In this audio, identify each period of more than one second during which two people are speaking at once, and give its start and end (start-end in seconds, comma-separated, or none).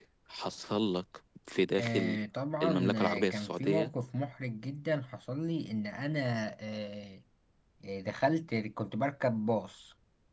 2.6-3.9